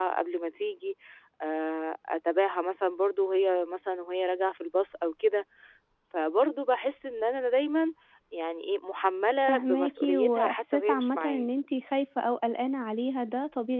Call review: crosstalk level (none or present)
present